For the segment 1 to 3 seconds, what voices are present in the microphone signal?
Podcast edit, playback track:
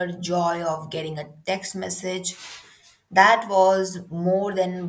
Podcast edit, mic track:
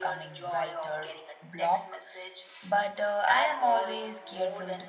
both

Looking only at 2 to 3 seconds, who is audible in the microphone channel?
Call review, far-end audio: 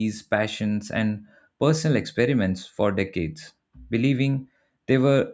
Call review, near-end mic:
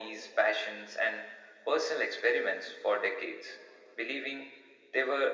echo only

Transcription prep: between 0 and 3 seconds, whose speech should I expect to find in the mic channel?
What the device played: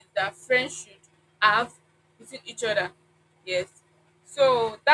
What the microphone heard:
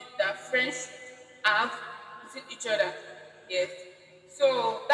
echo only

